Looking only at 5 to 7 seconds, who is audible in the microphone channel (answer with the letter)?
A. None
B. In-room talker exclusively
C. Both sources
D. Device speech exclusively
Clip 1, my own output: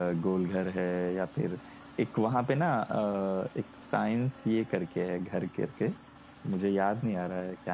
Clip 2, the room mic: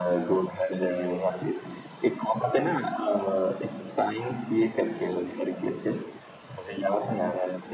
D